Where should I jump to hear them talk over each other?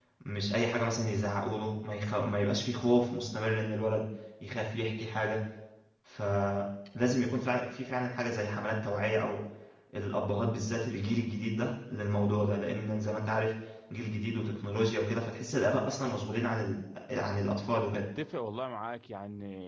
none

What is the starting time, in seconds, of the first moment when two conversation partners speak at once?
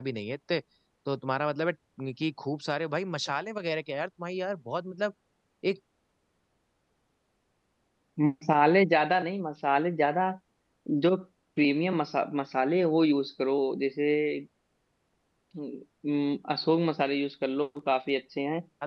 none

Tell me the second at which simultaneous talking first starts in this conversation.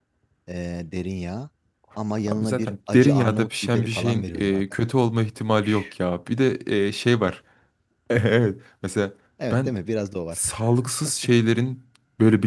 2.3 s

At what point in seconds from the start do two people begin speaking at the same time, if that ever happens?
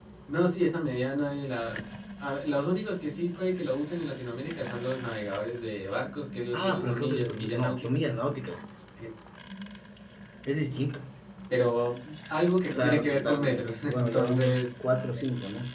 6.5 s

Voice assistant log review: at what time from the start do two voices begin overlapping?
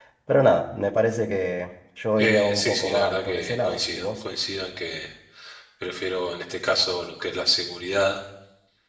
2.2 s

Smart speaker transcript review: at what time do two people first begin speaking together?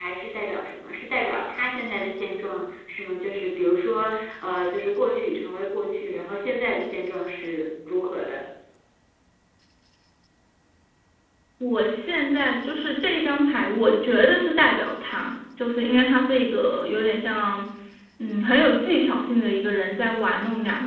none

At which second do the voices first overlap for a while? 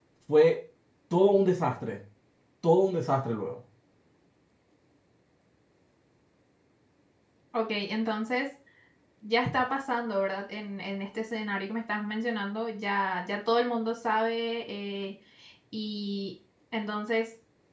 none

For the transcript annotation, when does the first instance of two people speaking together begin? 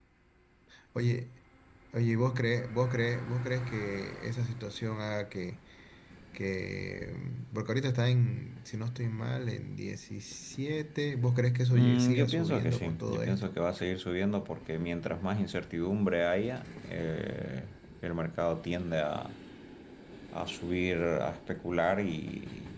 11.7 s

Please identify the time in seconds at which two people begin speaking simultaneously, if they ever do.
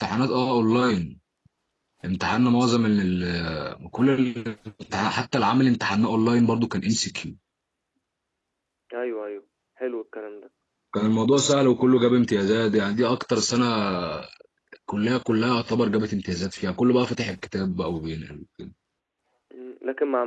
none

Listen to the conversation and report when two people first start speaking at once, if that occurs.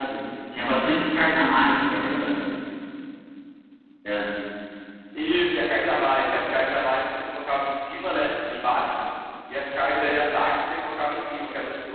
none

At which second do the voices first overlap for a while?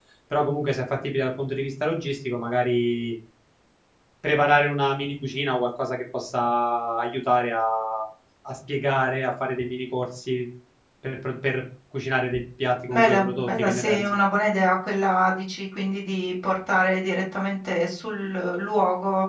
12.9 s

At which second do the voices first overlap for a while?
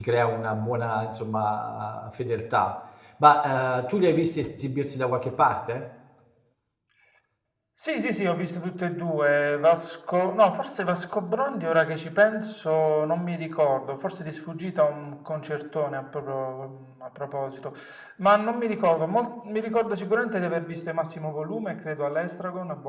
none

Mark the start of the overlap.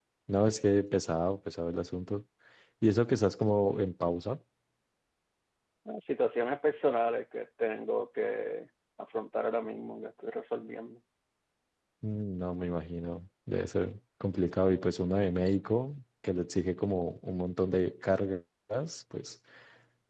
none

